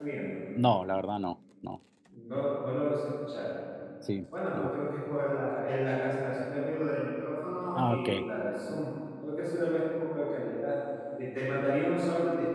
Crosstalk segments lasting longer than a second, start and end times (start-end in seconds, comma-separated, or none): none